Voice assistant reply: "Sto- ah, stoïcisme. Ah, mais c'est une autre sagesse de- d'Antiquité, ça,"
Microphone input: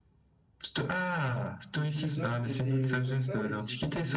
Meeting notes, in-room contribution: present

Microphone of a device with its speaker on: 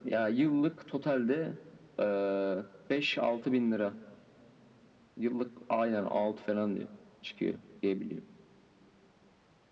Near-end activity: none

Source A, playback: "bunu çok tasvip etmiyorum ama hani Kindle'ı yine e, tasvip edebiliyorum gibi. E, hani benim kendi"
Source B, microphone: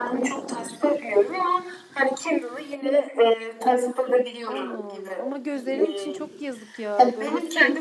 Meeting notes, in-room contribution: present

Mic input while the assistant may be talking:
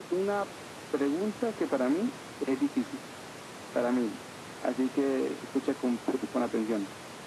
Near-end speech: none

